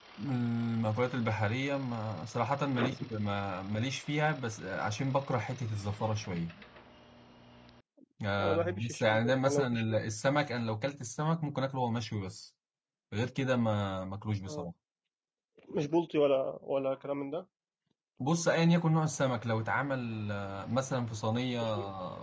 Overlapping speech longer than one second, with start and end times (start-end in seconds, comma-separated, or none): 8.4-9.8